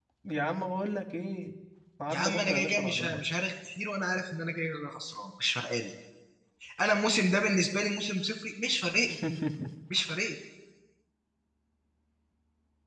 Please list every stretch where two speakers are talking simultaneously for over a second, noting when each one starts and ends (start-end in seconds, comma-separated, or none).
2.1-3.4